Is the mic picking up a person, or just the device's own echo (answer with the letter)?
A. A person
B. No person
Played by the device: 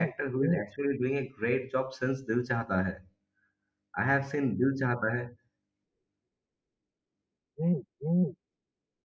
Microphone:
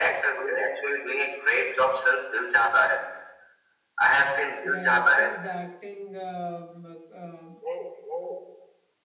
A